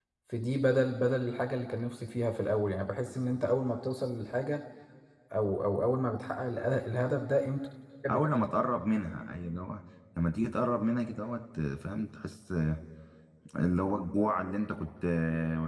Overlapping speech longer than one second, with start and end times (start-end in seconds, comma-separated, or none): none